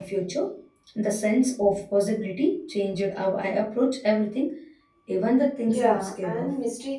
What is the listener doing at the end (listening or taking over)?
taking over